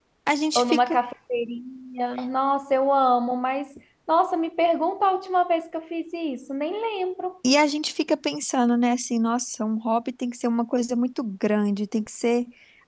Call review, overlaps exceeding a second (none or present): none